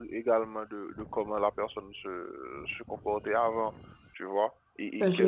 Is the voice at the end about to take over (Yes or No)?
Yes